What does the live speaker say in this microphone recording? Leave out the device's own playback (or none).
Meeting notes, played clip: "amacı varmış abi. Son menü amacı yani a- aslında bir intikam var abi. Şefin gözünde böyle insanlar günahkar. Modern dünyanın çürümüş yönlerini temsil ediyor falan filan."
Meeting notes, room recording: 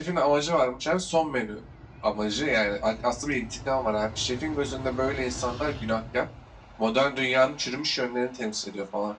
none